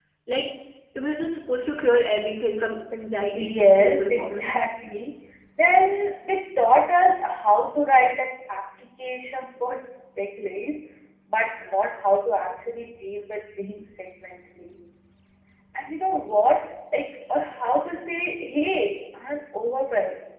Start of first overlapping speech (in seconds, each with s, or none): 3.3 s